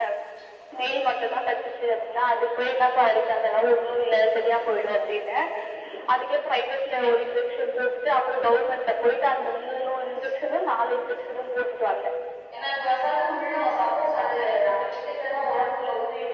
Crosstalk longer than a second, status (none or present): none